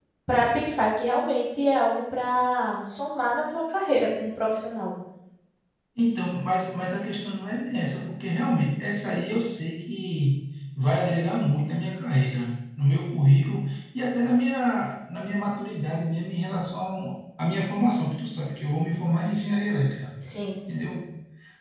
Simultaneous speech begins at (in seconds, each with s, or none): none